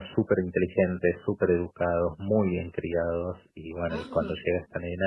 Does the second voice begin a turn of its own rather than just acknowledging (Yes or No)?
No